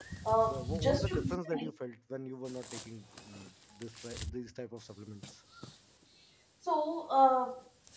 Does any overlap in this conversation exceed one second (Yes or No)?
Yes